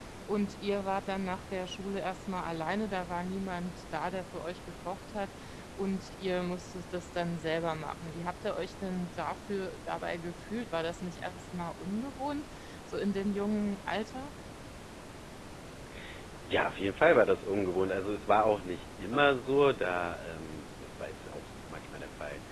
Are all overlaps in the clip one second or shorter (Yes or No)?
Yes